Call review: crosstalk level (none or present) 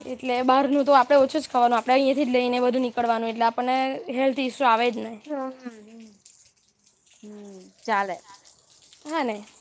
none